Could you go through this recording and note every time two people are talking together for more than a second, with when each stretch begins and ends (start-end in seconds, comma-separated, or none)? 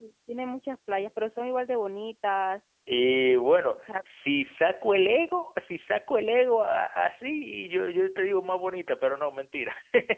none